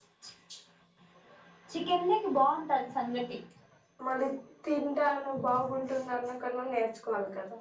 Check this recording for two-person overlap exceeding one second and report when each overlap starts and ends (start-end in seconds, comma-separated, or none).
none